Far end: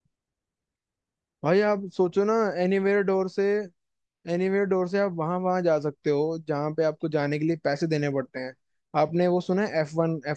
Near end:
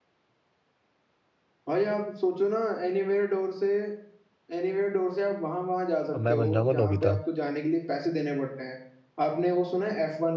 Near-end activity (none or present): present